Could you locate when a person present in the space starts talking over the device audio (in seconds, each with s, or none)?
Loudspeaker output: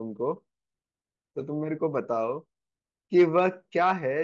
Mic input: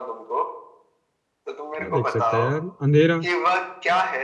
1.7 s